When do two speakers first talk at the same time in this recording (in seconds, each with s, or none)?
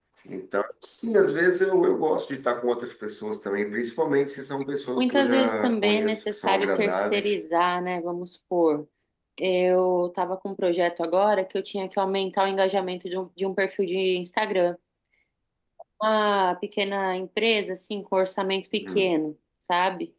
5.0 s